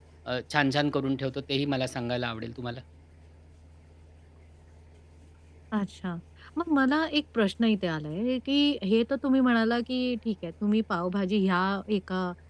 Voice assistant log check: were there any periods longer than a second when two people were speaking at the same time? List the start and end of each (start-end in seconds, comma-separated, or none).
none